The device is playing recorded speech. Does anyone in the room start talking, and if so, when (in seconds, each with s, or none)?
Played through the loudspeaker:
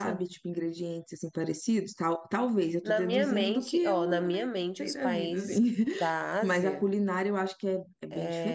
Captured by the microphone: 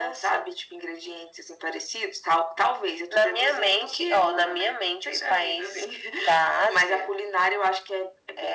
none